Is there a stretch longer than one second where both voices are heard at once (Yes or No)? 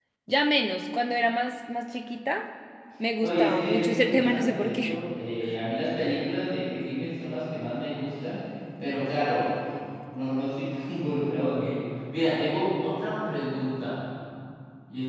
Yes